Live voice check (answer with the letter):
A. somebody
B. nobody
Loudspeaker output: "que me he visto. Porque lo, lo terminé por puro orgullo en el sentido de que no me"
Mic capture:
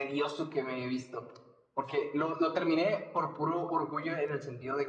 B